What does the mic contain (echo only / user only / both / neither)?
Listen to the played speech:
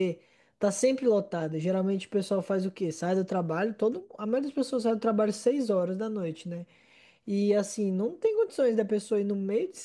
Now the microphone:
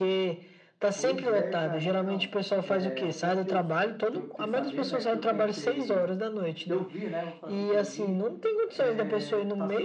both